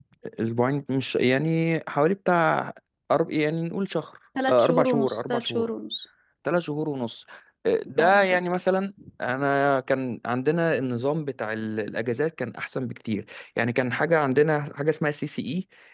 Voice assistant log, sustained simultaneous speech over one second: present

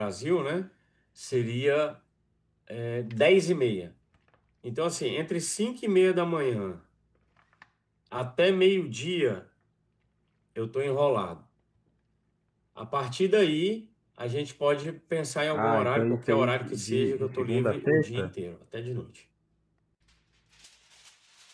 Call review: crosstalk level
present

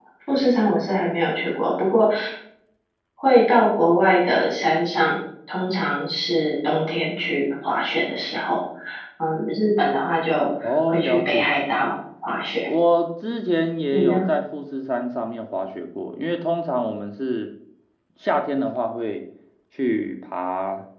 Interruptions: present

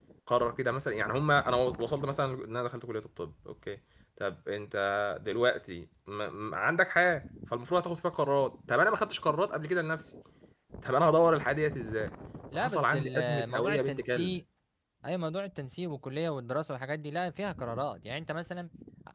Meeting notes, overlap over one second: present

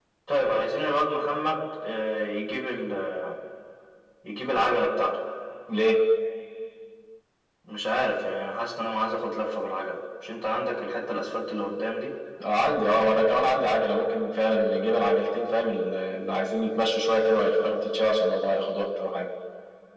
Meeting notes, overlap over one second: none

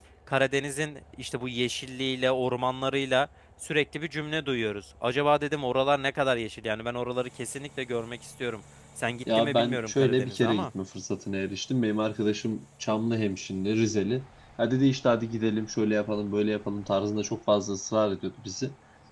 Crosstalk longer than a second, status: present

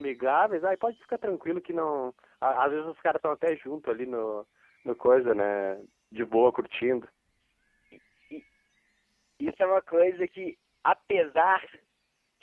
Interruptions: none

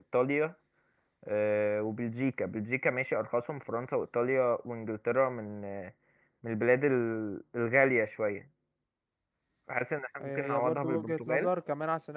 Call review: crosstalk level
present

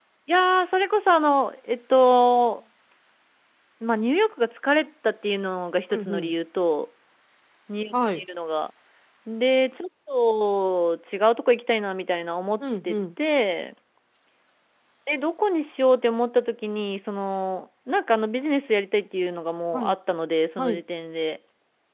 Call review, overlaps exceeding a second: none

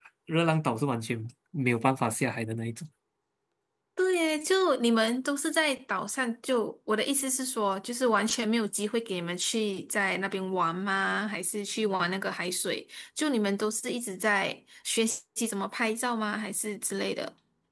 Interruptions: none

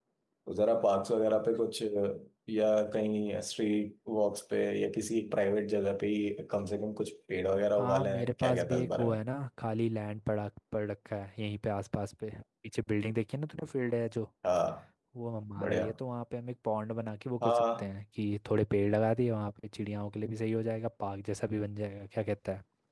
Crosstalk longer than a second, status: present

